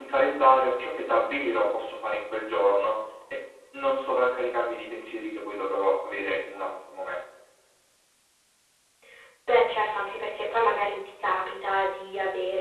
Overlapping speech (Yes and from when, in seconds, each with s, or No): No